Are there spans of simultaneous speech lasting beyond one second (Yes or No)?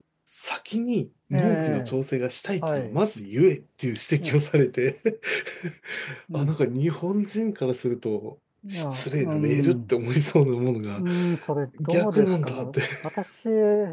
Yes